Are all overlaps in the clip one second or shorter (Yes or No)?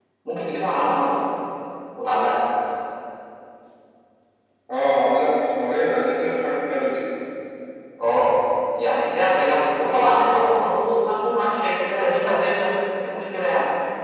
Yes